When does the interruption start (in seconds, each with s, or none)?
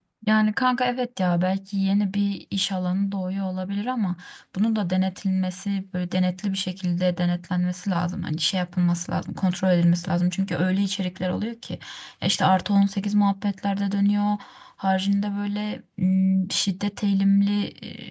none